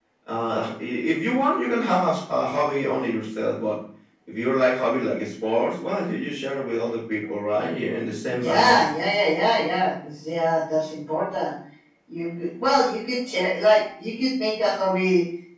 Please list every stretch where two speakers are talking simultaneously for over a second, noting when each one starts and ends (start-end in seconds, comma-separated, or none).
none